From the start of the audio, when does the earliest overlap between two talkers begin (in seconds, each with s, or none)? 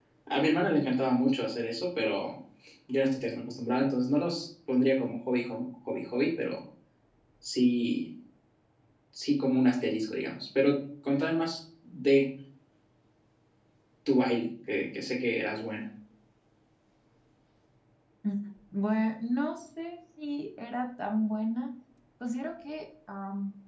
none